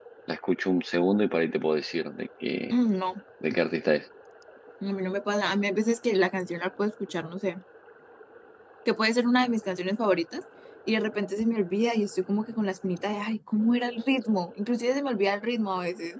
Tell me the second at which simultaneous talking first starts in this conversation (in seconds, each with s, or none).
none